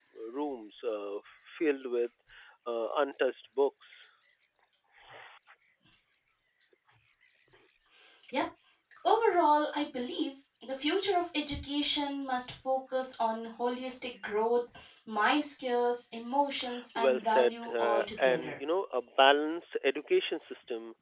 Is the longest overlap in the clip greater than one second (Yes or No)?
Yes